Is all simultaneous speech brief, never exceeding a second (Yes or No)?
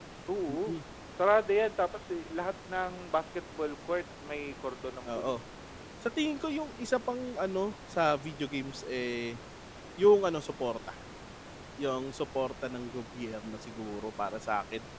Yes